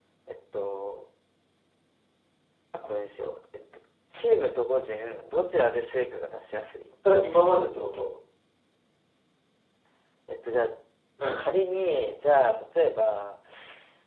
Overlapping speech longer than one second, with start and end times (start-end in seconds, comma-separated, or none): none